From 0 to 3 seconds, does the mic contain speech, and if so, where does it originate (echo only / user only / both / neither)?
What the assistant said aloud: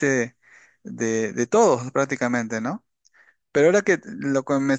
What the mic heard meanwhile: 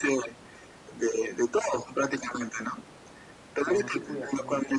echo only